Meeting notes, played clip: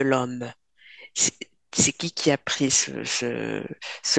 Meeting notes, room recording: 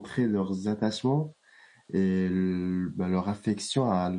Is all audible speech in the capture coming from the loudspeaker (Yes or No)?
No